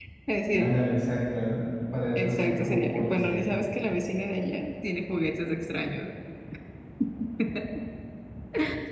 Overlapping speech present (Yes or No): Yes